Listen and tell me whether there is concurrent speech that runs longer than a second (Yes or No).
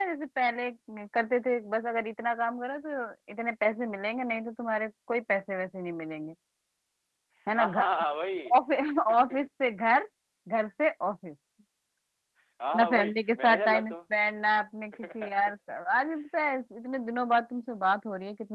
Yes